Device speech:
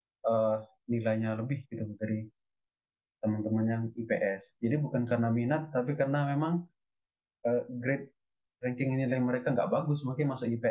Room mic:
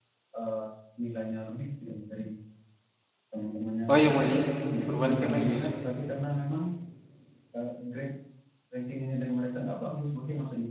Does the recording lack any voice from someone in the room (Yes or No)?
No